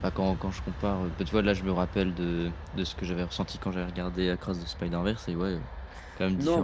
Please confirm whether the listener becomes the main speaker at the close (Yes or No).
Yes